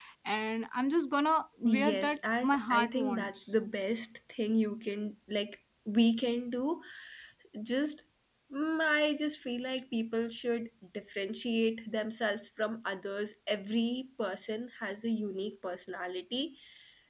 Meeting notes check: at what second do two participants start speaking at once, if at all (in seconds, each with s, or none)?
1.6 s